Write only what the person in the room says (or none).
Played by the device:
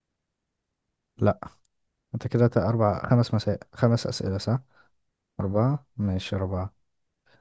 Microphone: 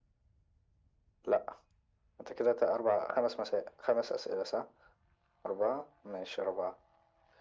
none